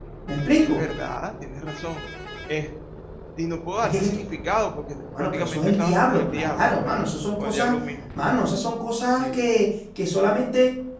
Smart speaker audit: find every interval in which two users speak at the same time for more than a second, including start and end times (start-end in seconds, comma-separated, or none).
5.2-7.0